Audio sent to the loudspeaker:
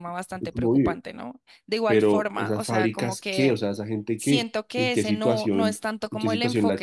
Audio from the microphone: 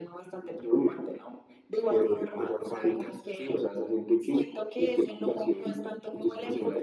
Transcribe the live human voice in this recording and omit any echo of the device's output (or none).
none